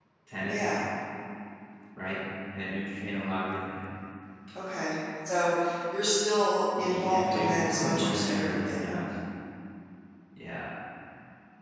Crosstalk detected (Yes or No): Yes